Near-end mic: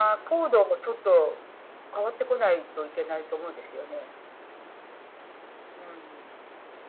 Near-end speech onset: none

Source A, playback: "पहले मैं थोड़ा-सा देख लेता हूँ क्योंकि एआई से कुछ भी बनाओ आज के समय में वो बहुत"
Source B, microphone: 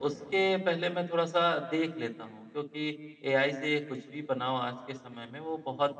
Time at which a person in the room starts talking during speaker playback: none

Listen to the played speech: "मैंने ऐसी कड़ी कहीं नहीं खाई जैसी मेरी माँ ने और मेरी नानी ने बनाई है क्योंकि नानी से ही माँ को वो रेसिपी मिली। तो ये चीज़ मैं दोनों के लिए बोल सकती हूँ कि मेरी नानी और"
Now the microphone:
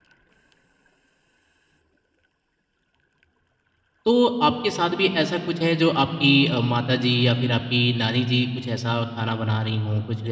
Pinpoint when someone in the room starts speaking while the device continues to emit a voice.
4.0 s

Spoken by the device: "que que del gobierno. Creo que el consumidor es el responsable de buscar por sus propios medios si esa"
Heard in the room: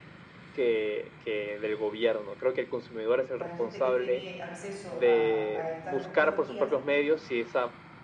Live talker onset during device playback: 3.3 s

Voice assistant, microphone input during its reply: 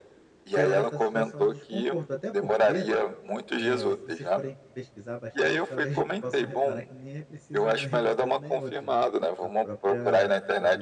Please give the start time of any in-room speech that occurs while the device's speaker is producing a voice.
0.5 s

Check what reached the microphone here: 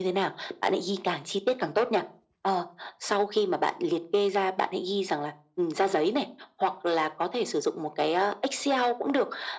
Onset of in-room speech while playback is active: none

